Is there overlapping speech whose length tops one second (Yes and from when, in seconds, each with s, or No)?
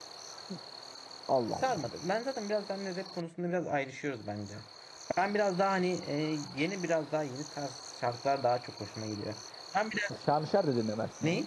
No